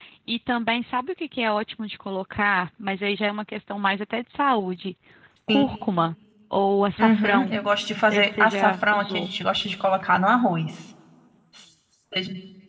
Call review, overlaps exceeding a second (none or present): present